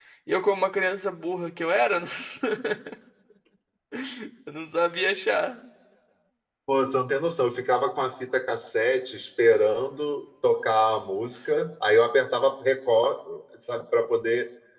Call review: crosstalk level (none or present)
none